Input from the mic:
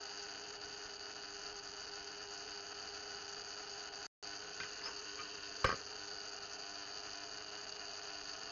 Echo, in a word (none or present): none